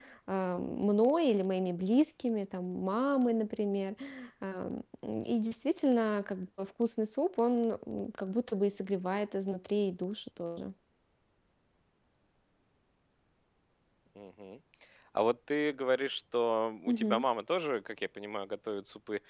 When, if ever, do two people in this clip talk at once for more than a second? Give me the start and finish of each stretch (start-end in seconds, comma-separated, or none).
none